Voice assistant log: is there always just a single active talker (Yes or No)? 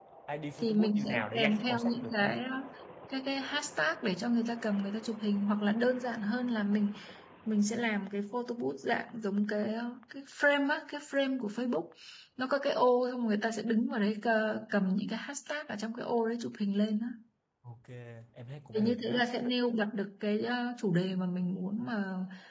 No